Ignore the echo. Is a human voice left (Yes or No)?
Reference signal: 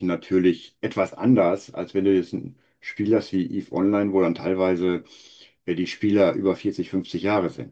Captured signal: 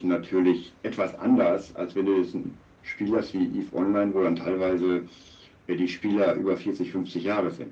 No